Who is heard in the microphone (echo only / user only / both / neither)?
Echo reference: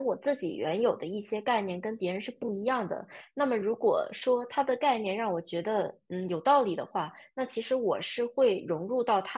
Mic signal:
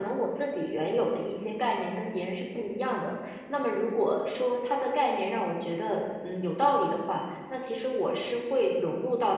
echo only